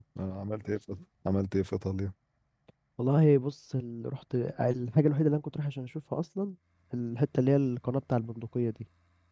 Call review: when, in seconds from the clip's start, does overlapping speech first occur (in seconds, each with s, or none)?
none